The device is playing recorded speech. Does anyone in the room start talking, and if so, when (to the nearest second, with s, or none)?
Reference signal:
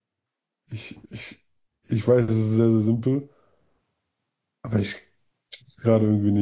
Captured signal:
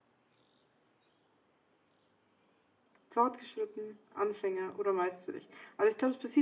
3 s